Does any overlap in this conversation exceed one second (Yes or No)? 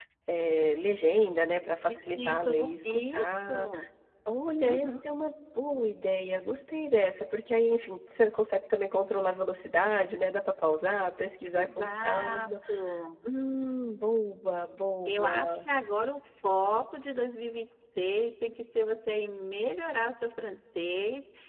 Yes